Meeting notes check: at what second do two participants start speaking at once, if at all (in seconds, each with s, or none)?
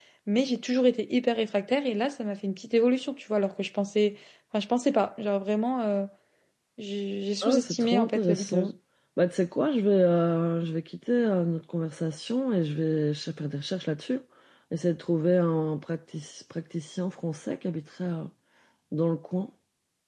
7.4 s